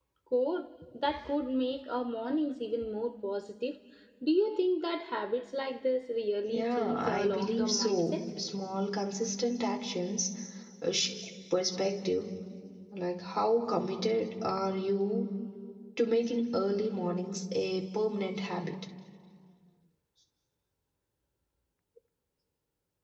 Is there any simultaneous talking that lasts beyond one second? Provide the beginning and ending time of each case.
6.5-8.2

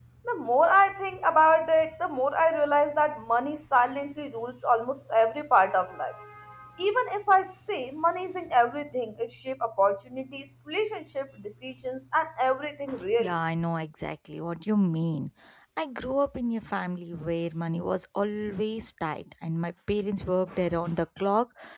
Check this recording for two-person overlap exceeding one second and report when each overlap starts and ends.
none

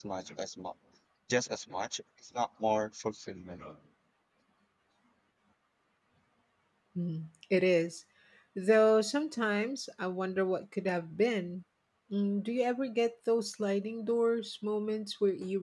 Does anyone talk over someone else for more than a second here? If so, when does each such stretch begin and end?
none

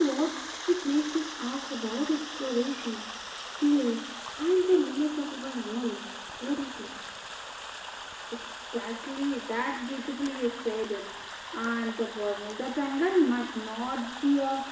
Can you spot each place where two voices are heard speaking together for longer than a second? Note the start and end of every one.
none

